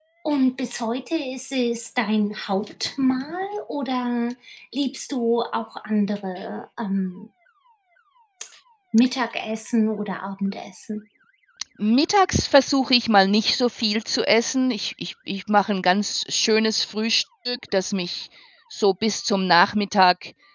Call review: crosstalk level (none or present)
none